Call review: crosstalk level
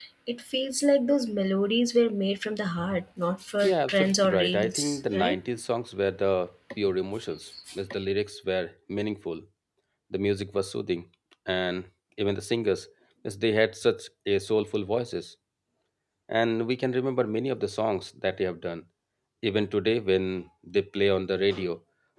present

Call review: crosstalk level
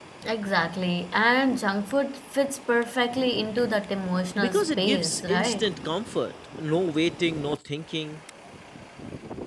present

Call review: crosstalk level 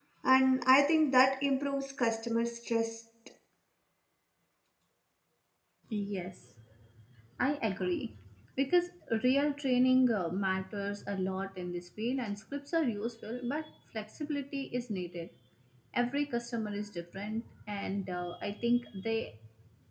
none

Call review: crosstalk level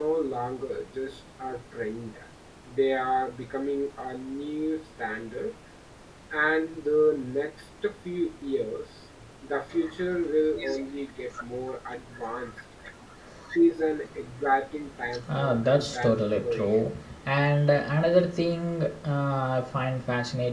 present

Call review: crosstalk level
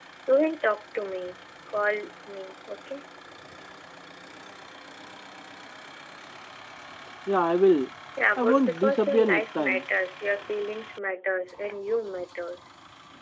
present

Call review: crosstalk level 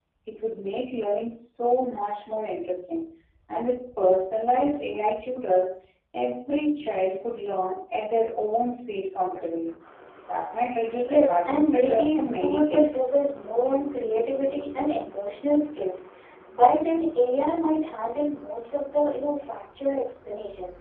present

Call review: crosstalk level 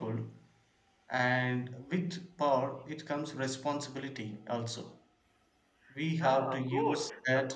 present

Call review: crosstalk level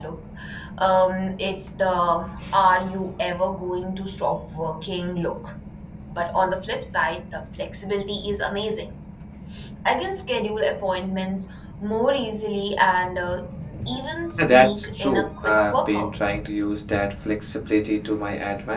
present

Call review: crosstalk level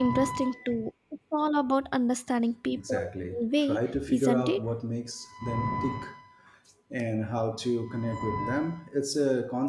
present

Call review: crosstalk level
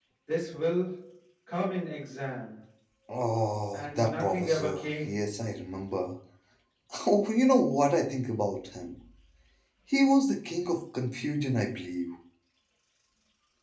present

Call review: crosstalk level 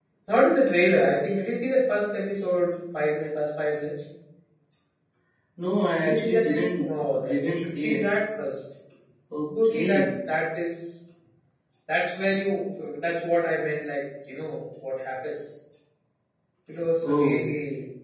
present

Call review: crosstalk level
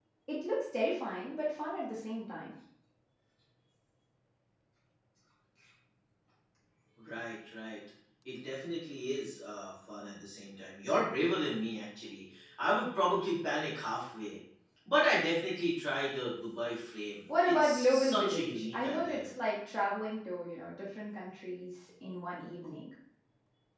present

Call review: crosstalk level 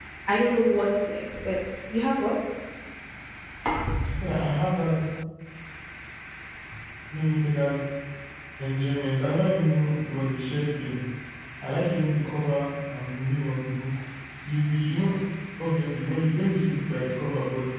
none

